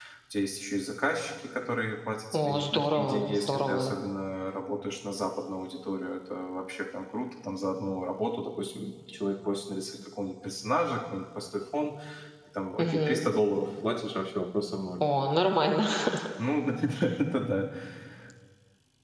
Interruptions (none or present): present